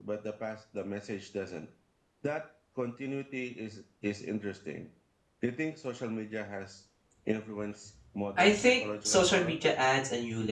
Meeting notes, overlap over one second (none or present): present